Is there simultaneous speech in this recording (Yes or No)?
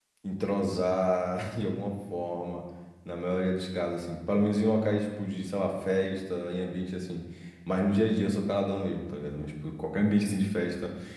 No